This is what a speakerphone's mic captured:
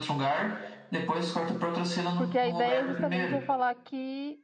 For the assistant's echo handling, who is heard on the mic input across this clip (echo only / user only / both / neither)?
both